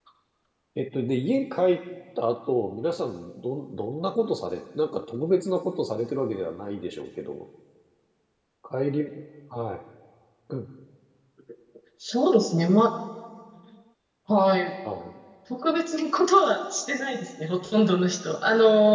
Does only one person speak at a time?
Yes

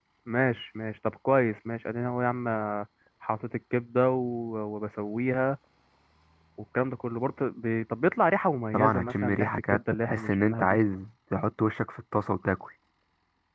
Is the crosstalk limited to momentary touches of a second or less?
No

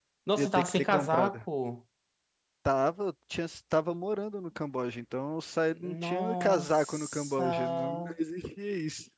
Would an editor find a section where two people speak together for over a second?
Yes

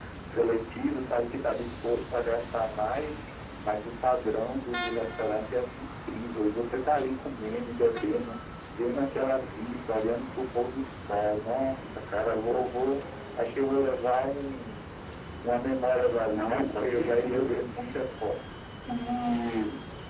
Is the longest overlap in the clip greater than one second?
Yes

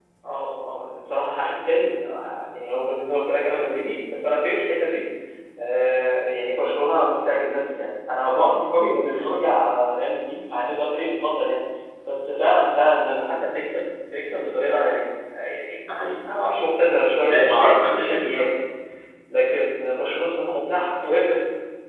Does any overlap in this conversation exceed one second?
Yes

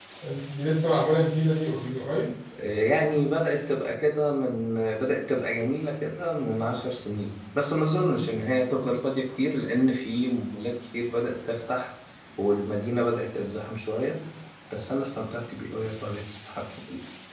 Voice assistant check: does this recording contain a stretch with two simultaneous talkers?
No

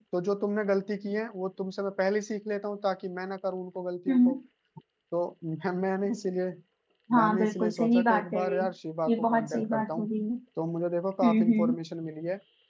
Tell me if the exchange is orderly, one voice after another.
No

